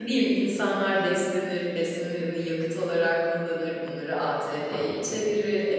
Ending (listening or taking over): listening